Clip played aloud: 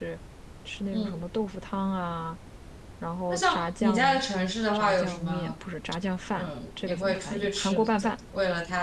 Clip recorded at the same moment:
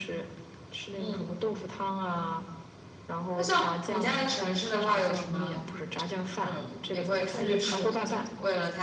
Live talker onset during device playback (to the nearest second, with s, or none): 7 s